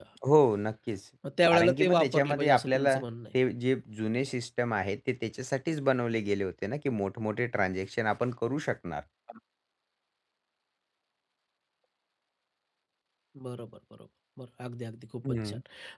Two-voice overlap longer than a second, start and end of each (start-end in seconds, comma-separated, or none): 1.5-3.0